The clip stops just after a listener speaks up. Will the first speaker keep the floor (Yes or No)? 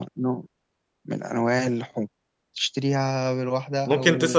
No